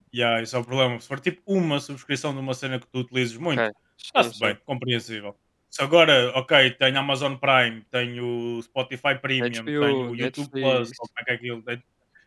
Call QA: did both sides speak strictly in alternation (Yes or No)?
No